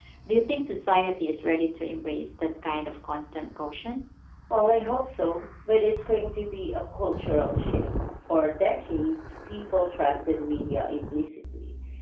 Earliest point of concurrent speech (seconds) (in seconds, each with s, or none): none